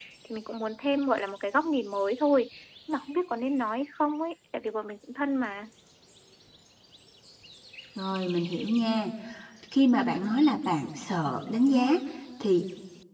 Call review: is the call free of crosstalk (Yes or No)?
Yes